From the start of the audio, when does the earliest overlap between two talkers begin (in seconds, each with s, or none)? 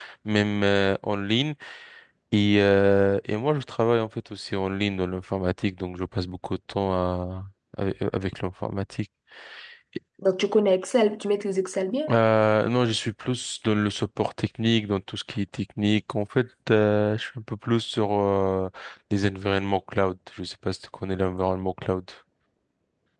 none